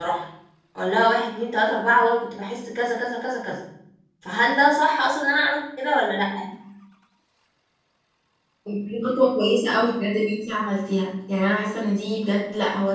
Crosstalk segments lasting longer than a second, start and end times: none

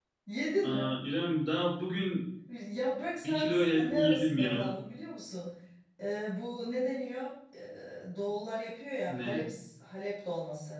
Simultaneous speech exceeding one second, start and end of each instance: 3.2-4.7

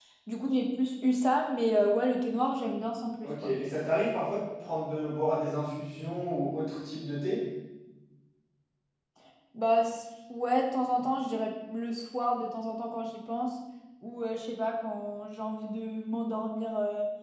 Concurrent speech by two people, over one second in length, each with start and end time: none

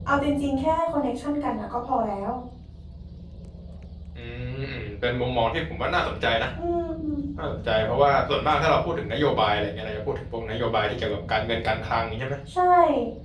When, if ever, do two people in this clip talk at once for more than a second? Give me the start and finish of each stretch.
none

